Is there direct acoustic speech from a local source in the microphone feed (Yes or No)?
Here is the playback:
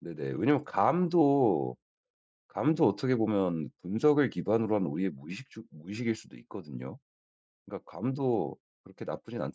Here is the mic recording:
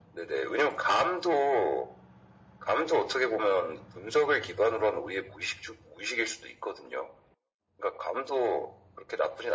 No